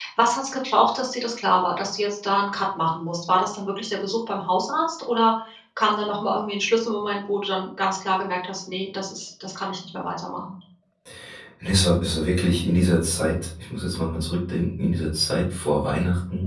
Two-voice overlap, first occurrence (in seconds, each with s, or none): none